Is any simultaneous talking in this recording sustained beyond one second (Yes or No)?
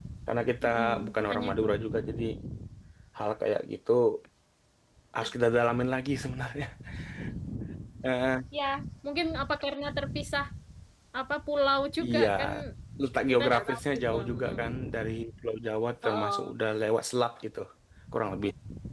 Yes